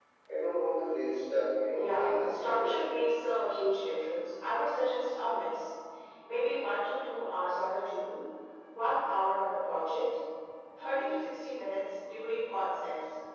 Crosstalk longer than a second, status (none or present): present